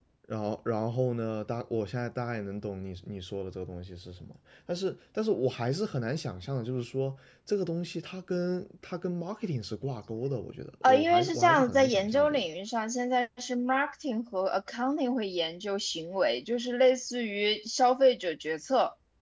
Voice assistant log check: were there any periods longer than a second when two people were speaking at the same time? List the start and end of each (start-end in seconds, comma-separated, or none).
10.8-12.4